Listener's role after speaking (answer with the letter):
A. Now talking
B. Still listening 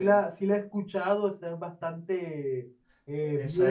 A